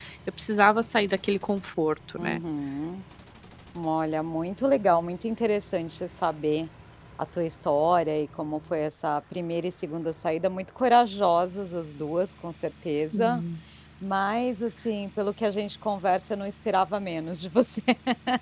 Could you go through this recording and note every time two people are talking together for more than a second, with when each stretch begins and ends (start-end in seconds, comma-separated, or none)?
none